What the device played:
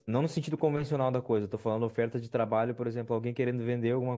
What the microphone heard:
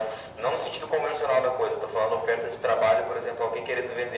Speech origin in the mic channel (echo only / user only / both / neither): echo only